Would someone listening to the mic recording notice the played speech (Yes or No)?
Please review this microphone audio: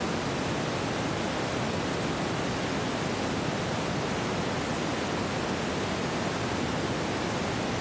No